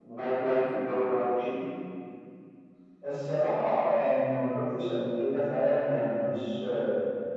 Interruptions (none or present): none